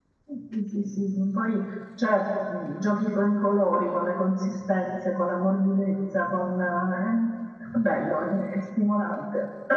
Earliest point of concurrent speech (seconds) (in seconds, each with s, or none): none